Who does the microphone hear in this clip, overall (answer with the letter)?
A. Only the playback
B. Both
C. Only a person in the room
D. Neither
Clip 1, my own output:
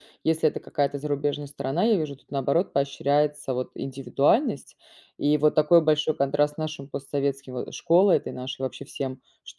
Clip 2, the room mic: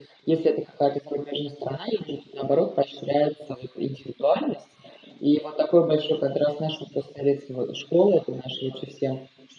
A